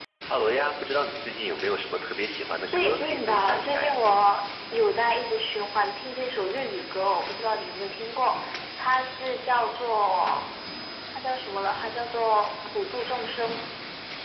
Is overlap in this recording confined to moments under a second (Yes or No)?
No